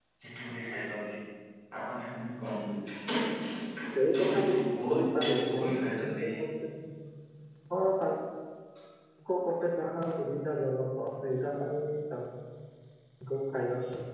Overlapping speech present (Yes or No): Yes